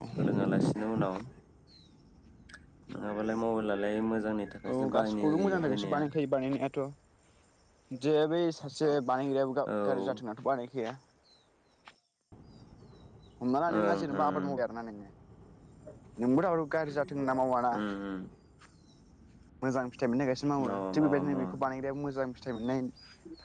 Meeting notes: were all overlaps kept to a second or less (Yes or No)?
No